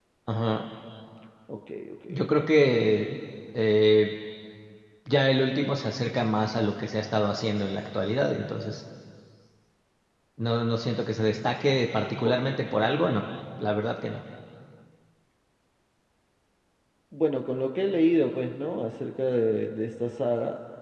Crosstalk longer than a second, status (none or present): none